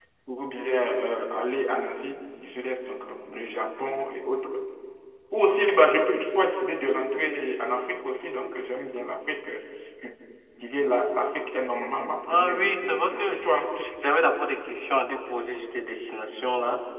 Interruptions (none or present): present